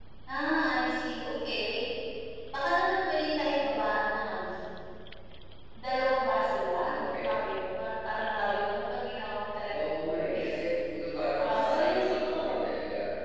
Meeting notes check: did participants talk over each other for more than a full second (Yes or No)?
Yes